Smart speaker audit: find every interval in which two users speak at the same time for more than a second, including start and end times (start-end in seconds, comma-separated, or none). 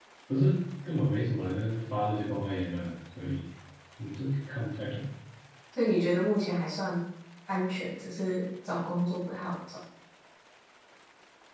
none